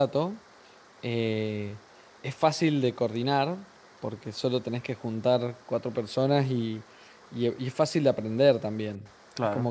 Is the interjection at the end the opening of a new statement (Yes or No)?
No